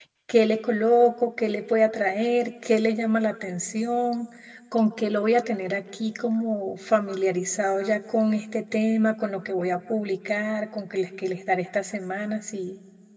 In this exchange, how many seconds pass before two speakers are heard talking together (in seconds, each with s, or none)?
none